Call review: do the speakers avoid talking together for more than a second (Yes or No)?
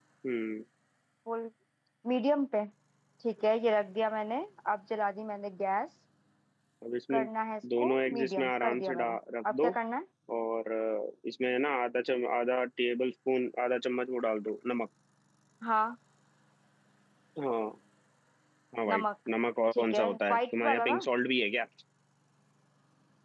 No